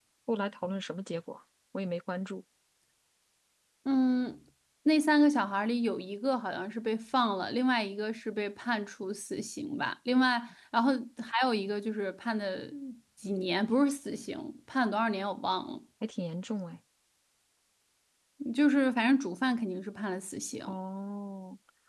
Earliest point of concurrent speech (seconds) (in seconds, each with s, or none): none